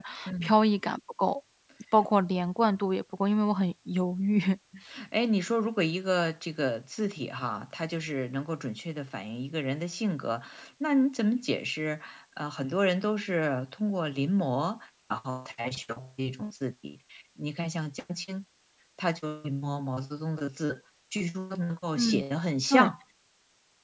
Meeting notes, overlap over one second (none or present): none